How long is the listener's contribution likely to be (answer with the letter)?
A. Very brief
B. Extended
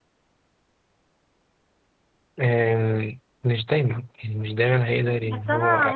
B